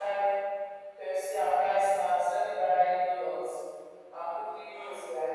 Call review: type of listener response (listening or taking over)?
listening